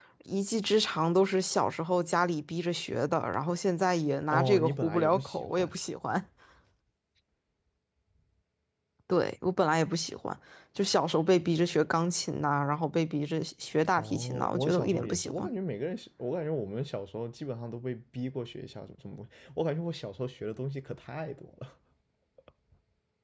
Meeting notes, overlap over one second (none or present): present